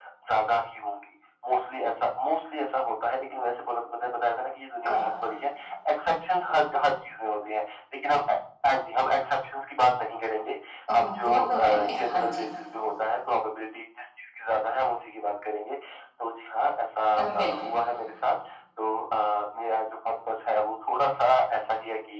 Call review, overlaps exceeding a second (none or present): present